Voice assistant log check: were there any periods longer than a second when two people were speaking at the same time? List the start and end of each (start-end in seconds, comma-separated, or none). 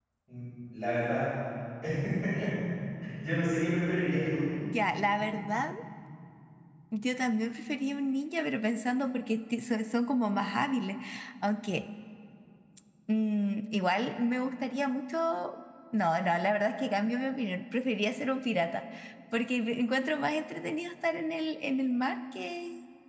none